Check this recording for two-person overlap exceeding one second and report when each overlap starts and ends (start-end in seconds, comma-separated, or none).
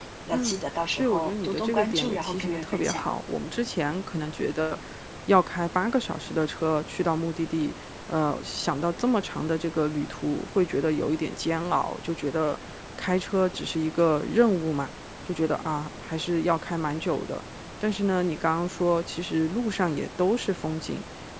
1.0-3.0